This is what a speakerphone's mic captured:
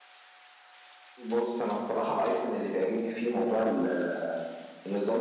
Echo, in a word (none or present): present